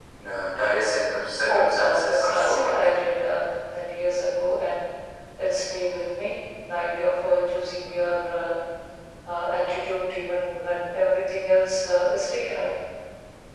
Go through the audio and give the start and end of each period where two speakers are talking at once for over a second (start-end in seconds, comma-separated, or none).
1.5-3.0